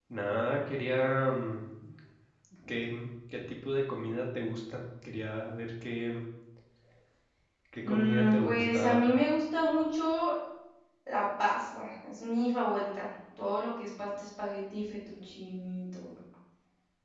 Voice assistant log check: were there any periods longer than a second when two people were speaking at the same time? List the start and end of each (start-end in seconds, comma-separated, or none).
7.8-9.1